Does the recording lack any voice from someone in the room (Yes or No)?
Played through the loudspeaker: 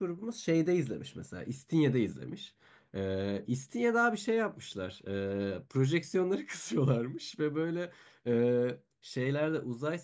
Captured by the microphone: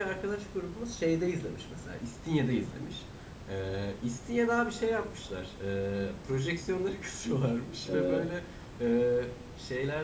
No